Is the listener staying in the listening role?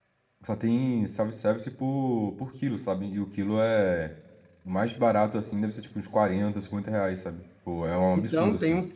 No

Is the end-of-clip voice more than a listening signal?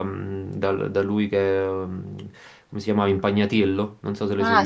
Yes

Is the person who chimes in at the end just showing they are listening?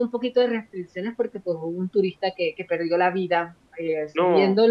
Yes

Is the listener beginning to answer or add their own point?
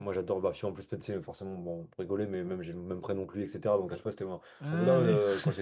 No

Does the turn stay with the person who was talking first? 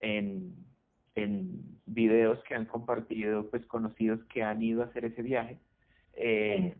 Yes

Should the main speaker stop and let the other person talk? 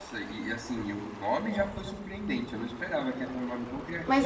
Yes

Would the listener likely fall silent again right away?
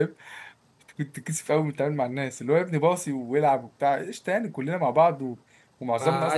Yes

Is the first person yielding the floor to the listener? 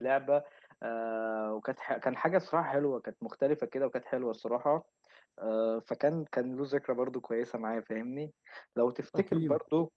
No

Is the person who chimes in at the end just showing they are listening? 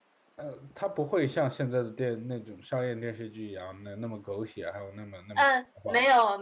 No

